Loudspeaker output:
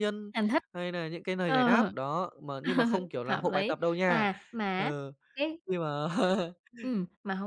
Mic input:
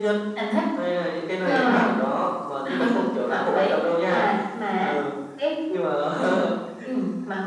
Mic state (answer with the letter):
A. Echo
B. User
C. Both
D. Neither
C